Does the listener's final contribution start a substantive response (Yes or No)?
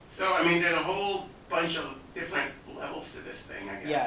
Yes